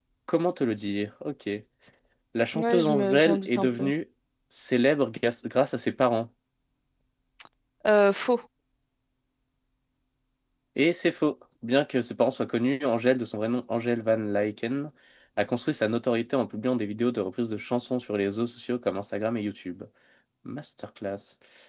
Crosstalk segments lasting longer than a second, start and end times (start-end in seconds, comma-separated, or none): 2.5-3.9